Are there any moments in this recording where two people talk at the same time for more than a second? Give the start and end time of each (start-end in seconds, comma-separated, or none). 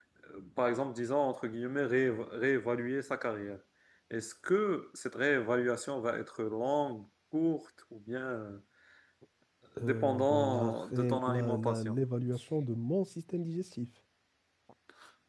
9.8-11.9